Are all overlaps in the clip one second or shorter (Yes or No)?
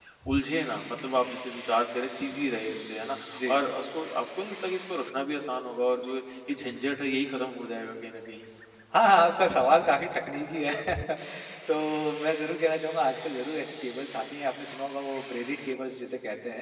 Yes